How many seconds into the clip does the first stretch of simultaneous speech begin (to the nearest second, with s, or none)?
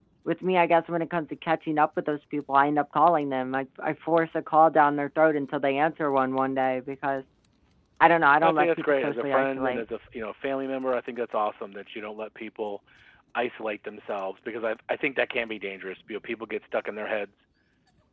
8 s